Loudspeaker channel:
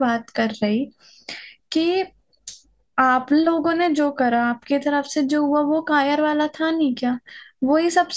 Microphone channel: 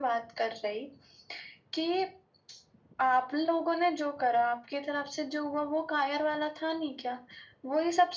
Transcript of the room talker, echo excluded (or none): none